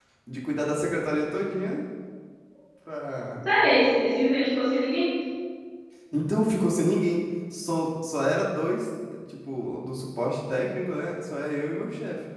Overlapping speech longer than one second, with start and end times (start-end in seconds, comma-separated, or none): none